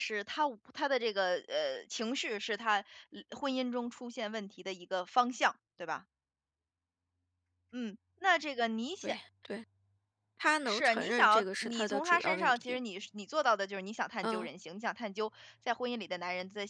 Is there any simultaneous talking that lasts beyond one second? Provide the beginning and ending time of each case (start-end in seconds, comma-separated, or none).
10.6-12.8